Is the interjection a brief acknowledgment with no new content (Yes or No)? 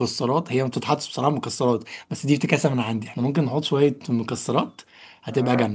No